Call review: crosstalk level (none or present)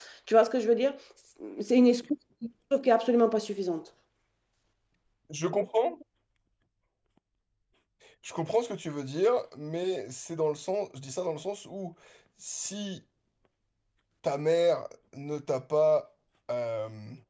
none